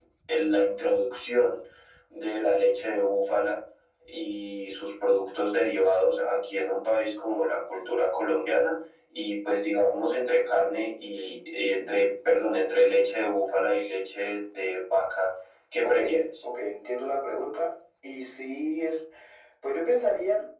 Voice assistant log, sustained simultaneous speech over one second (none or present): none